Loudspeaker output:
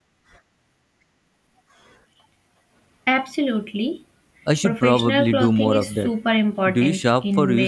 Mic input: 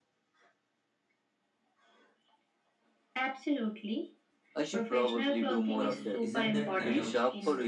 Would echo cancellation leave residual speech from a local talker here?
Yes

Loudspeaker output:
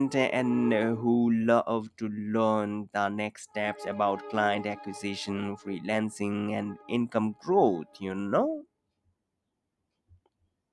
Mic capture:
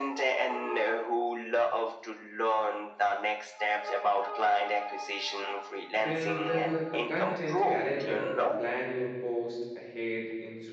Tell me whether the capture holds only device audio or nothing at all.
No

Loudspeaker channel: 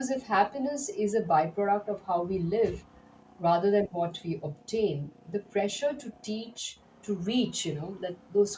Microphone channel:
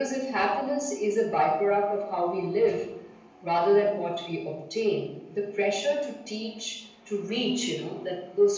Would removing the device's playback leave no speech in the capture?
Yes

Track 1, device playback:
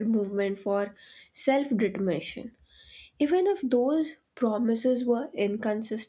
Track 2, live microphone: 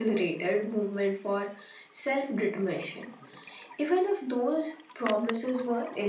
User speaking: No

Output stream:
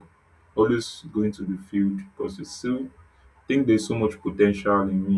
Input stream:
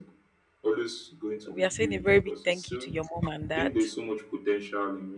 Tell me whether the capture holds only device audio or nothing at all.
No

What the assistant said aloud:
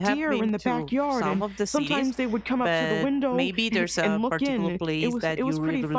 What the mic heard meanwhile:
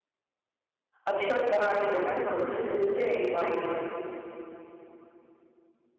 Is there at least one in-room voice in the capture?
Yes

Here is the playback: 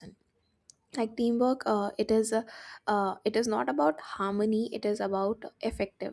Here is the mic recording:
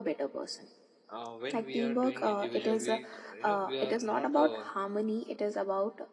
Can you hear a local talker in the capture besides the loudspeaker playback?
Yes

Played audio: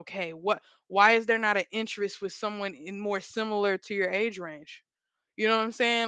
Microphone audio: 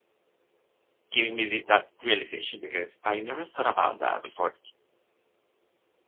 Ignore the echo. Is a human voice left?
Yes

